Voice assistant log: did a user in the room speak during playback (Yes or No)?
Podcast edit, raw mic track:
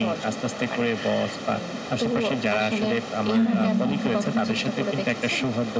Yes